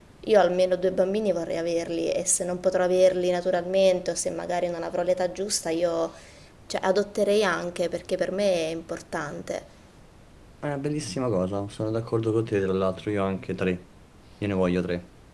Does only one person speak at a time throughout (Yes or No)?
Yes